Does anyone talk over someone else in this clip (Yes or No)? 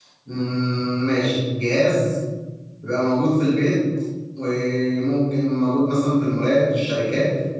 No